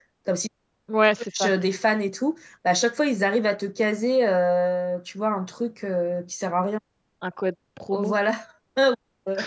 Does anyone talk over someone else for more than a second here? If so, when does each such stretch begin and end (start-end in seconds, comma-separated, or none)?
none